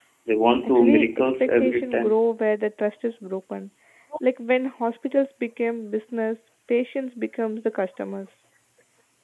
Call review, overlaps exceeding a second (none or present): present